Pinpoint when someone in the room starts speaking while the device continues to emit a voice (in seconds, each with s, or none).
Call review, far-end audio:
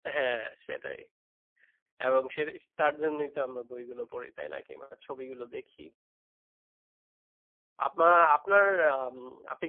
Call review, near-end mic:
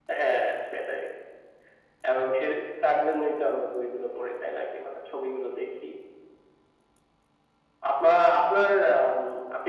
none